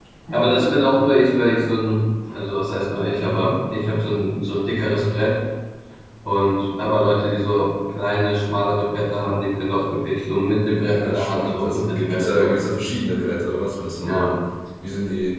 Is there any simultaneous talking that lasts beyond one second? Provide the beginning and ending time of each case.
10.8-12.7

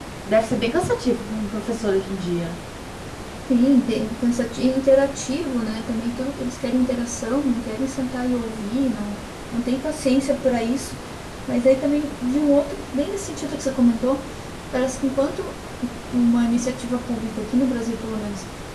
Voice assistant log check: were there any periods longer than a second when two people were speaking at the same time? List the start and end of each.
none

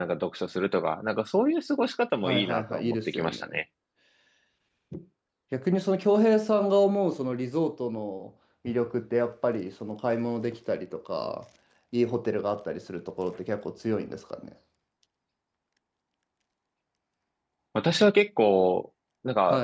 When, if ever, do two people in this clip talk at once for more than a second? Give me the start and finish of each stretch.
2.2-3.5

